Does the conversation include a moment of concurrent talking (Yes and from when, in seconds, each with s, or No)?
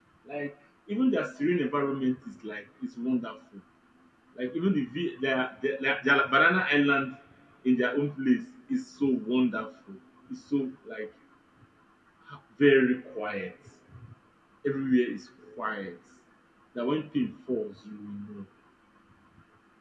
No